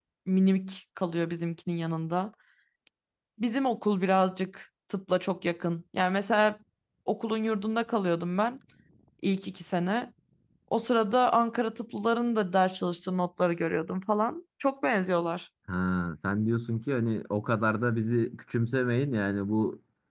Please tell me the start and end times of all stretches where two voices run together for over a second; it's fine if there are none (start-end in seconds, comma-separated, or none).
none